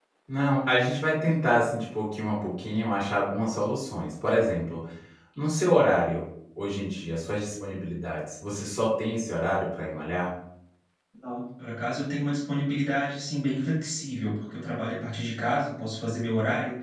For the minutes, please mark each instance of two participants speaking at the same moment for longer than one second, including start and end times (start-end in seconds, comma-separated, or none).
none